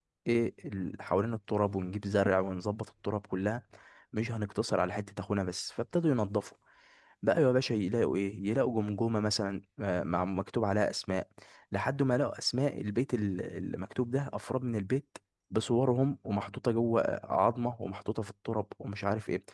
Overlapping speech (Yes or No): No